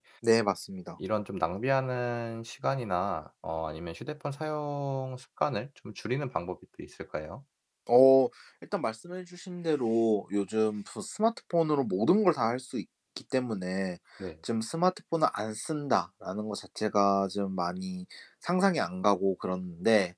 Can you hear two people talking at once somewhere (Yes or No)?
No